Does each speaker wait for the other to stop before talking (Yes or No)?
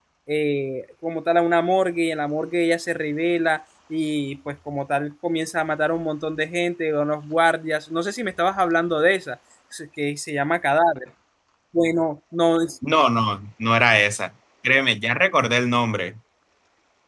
Yes